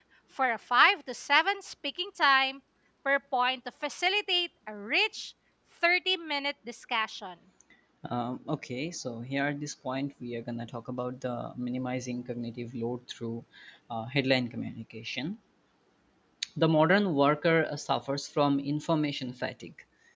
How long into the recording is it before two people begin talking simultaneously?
none

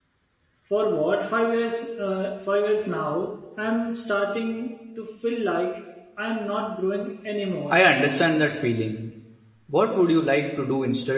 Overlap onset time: none

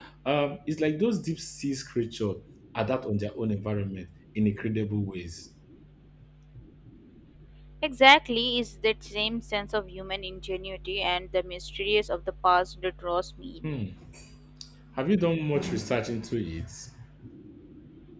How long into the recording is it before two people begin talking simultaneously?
none

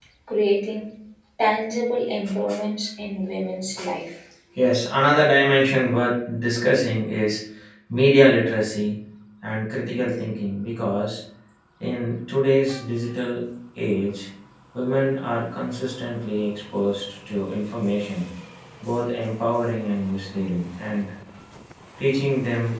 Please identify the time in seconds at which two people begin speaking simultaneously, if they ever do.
none

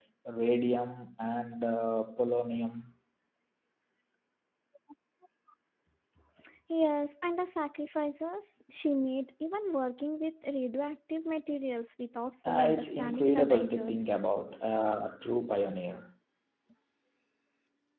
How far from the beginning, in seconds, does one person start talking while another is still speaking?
12.4 s

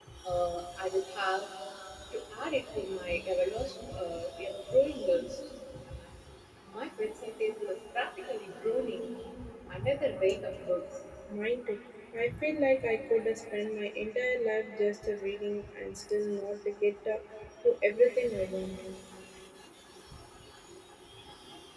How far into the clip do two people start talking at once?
none

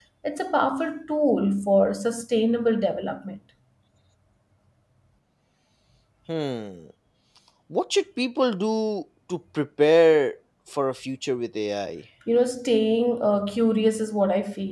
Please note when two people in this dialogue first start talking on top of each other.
none

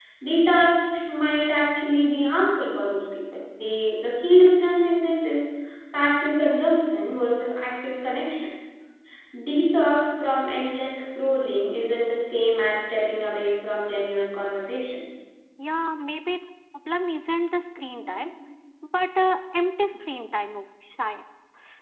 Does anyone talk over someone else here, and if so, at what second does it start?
none

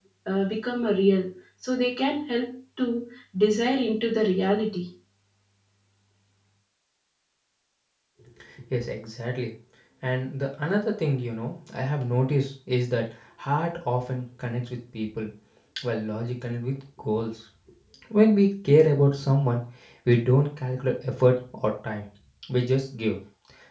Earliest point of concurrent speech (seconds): none

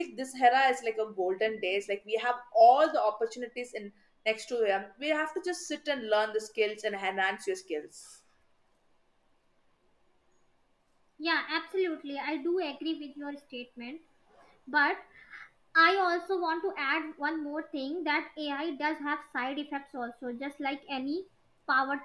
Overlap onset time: none

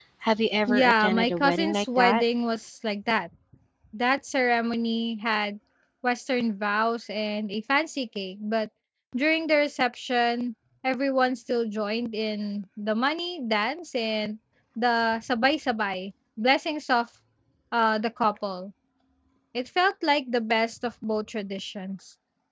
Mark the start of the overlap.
0.7 s

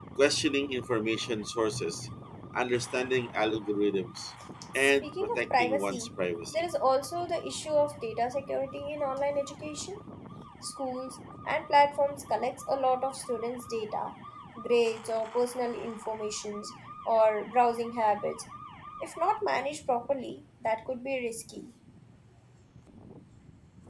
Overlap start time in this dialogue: 4.8 s

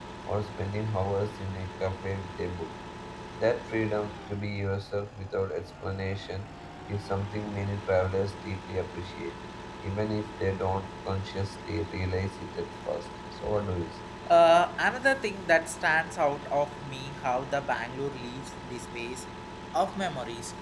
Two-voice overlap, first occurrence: none

